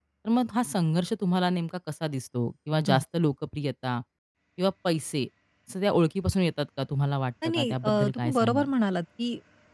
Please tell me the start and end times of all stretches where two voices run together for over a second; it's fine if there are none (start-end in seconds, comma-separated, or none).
7.5-8.7